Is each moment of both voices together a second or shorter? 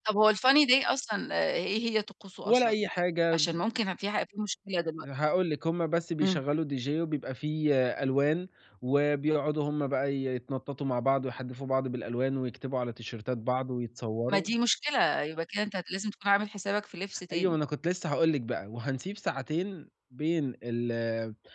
Yes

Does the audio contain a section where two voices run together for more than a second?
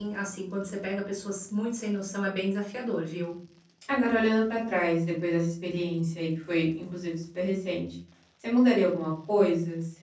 No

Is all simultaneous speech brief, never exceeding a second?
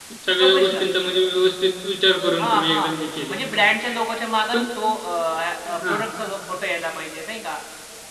Yes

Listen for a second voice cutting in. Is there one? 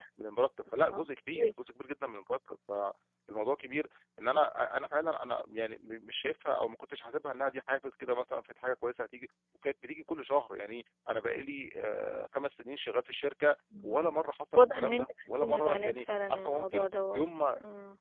Yes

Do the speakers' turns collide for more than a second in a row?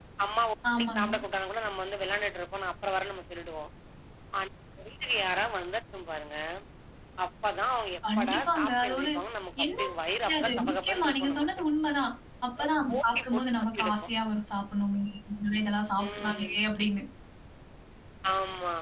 Yes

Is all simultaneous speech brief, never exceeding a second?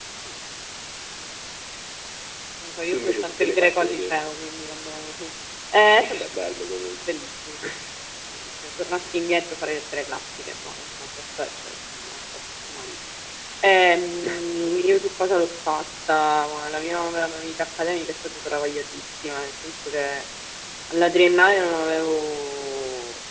No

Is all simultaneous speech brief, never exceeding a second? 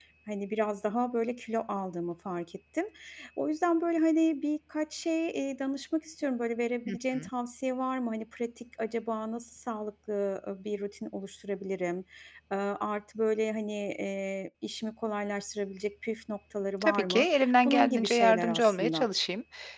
No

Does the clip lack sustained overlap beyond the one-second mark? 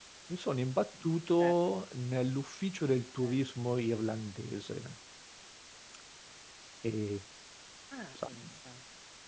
Yes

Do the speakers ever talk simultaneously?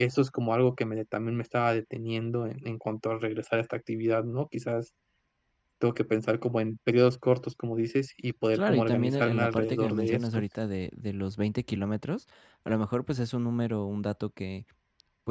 Yes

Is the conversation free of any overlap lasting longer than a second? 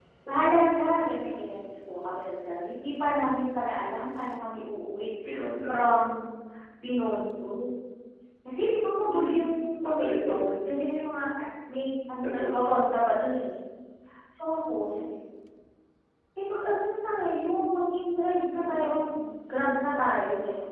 No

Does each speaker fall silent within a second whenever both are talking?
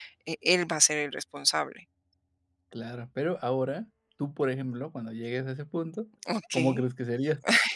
Yes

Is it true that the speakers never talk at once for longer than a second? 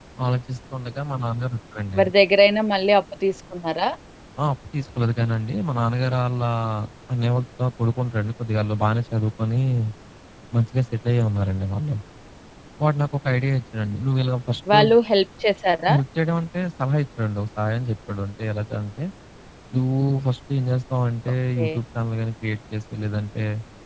Yes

